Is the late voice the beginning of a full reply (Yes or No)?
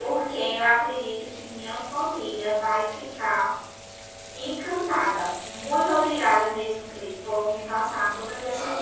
Yes